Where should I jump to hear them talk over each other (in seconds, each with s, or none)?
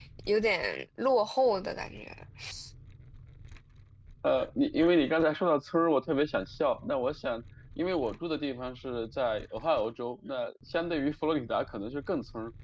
none